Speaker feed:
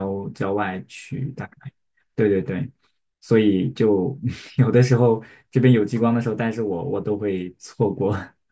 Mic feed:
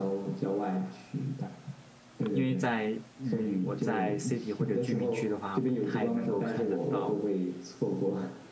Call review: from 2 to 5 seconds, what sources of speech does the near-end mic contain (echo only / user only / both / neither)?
both